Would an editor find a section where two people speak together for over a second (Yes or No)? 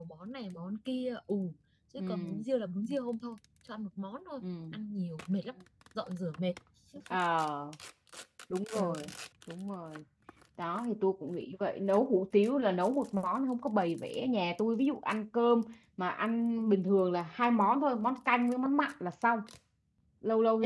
No